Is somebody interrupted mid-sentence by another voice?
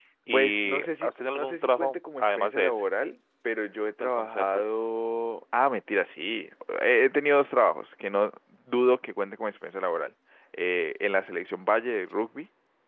Yes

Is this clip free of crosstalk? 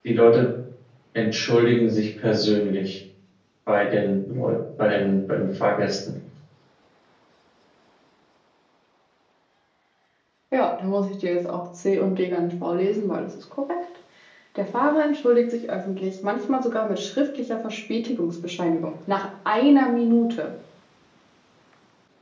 Yes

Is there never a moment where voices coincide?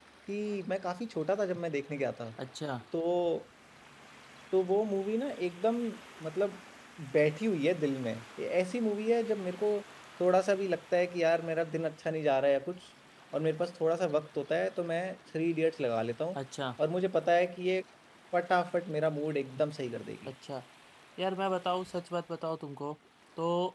Yes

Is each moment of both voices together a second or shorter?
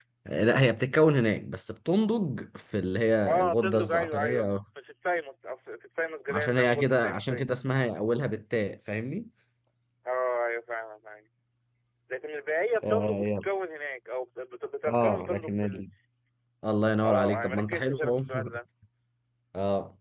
No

